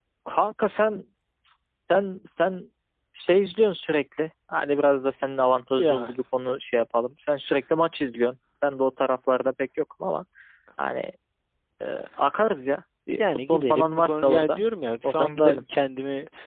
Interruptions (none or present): present